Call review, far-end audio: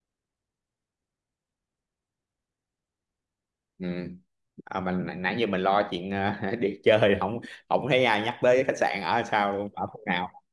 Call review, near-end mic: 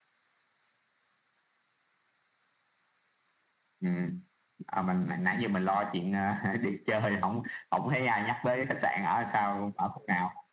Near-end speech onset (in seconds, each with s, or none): none